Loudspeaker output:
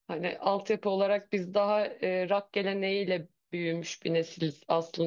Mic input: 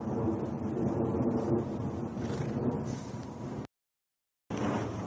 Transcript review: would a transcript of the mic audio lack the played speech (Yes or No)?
Yes